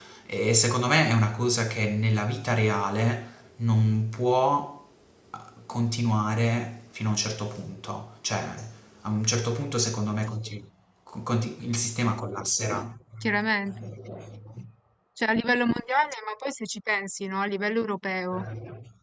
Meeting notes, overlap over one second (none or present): none